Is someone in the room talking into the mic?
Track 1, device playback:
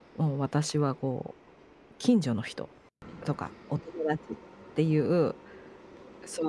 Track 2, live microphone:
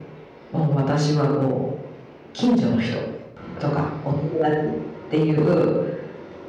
No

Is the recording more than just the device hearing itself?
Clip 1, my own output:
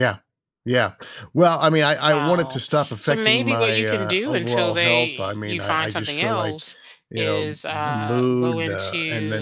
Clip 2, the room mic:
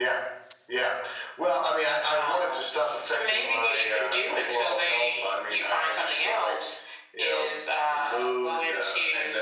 No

